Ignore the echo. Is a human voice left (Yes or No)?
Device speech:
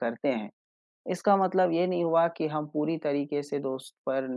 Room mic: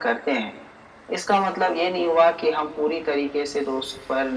No